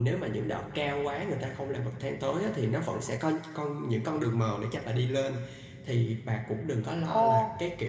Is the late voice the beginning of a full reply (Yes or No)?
No